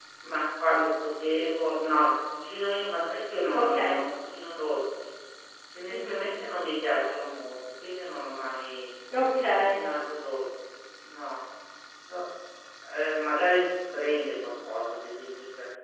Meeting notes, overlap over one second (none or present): none